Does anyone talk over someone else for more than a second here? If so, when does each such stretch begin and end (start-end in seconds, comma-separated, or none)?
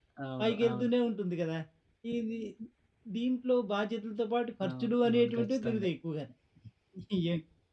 4.7-5.9